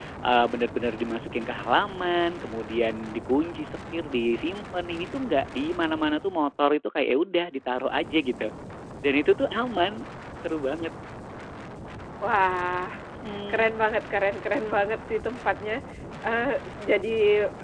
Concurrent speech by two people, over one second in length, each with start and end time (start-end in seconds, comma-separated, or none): none